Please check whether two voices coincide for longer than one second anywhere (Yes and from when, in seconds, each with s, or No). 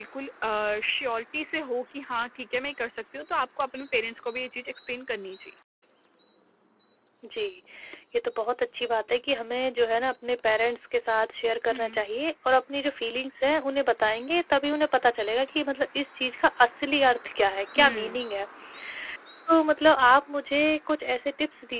No